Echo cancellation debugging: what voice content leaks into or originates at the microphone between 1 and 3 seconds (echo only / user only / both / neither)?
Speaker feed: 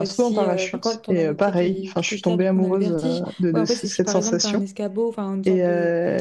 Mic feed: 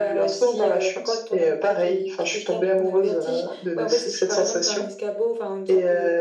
echo only